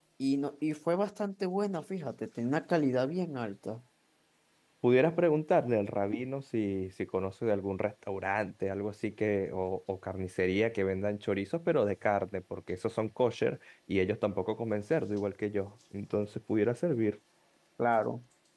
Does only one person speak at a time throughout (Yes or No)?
Yes